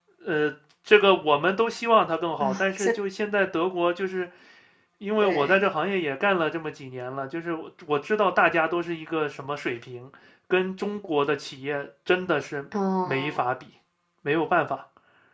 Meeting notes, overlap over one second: none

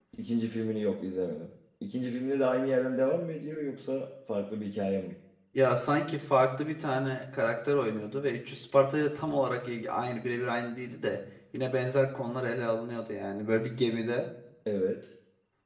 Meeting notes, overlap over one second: none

